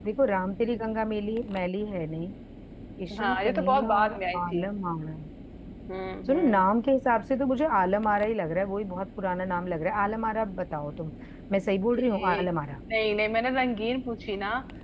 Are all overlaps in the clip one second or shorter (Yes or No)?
No